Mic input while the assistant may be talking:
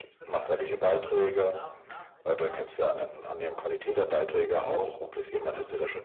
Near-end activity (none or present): present